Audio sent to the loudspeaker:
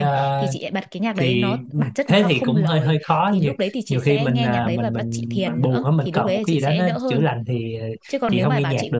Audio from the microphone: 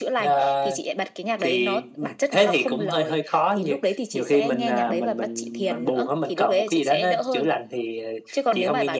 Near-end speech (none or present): none